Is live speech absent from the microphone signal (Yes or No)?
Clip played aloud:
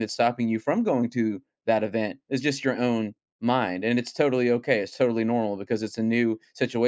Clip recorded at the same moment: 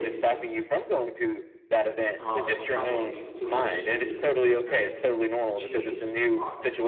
No